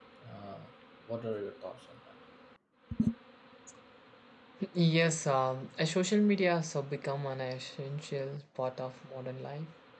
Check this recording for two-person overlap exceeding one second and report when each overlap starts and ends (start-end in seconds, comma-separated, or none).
none